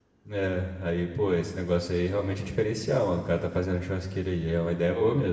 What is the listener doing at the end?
taking over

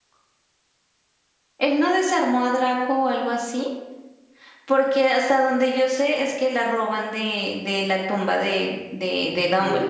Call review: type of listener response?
taking over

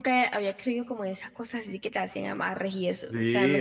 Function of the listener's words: taking over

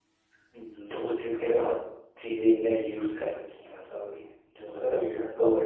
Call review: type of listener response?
taking over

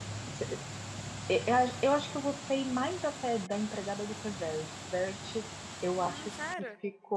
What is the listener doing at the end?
listening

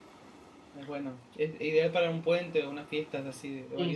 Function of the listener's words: taking over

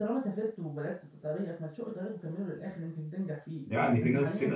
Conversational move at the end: taking over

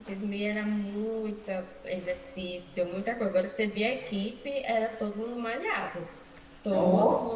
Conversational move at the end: listening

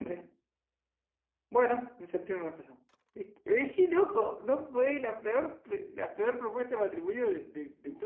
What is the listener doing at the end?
taking over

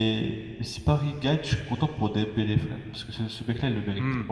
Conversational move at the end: listening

